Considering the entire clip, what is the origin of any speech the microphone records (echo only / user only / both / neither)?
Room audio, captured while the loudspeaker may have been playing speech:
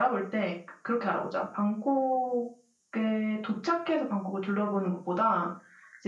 echo only